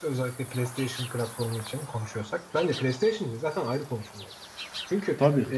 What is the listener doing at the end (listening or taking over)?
listening